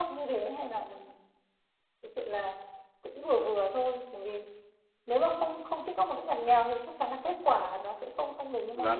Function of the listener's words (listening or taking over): taking over